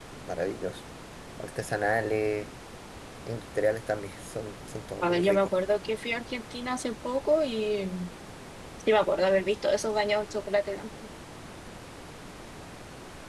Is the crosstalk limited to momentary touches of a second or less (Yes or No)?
Yes